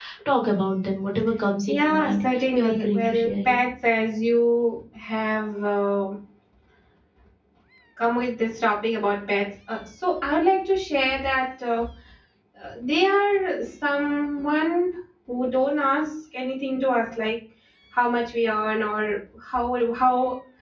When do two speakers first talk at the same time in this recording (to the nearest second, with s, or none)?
2 s